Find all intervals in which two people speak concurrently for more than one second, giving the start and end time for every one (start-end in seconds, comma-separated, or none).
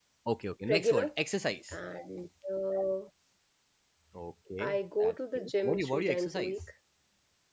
4.6-6.6